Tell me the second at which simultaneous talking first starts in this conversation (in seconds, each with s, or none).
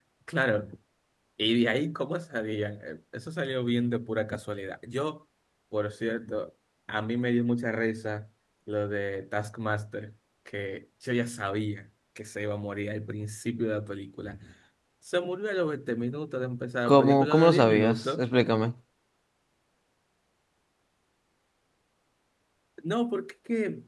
16.9 s